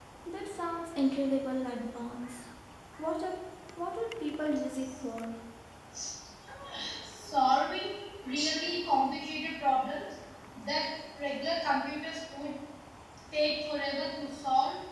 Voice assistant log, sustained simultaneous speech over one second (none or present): none